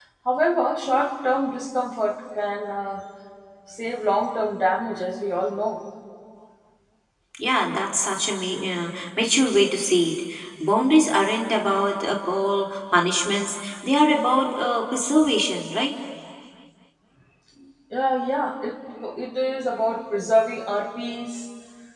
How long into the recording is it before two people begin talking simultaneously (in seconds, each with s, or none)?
none